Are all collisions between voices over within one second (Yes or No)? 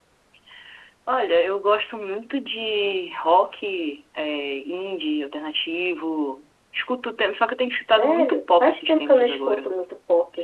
No